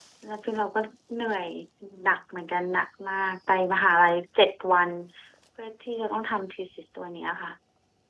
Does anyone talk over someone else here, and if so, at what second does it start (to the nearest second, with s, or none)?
none